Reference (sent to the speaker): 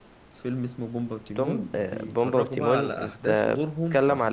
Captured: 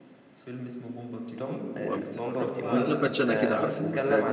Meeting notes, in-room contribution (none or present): present